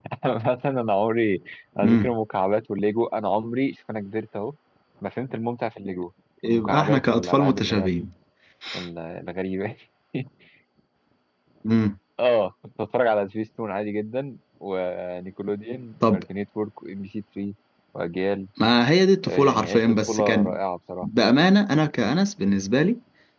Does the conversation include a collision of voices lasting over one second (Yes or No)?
Yes